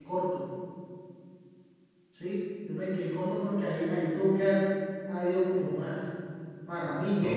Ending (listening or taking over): taking over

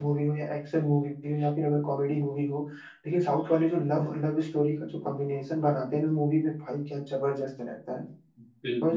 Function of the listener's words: taking over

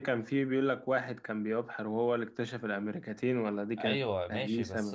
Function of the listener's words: taking over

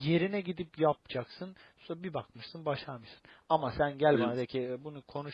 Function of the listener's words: listening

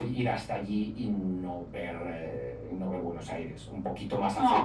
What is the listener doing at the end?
taking over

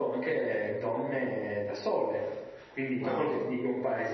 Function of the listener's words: listening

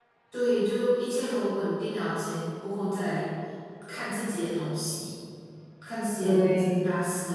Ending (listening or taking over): listening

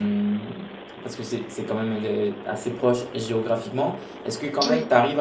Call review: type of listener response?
listening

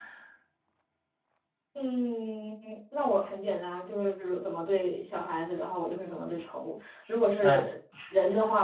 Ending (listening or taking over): listening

